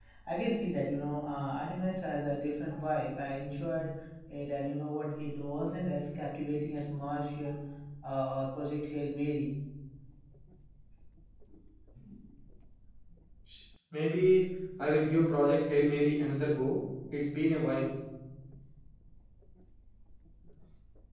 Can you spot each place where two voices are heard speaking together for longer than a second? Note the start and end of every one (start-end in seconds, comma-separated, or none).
none